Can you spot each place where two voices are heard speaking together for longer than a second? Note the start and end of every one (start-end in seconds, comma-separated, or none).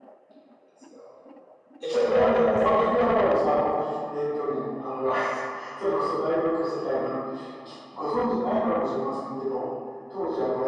1.9-3.2